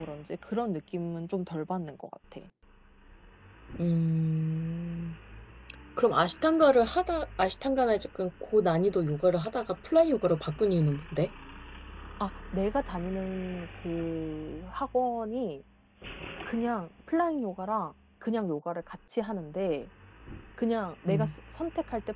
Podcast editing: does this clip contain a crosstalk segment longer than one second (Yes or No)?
No